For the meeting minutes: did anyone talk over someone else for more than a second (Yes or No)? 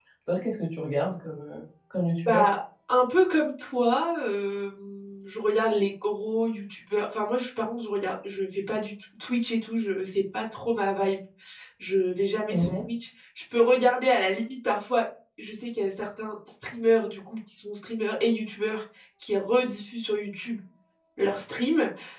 No